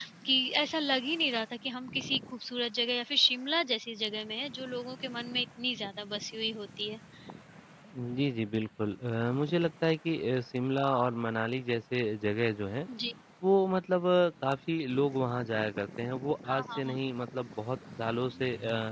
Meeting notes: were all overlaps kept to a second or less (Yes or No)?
Yes